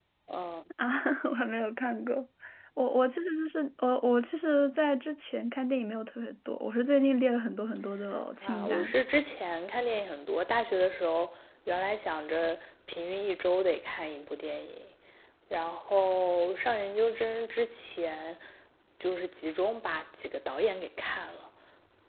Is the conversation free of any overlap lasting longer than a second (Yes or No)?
Yes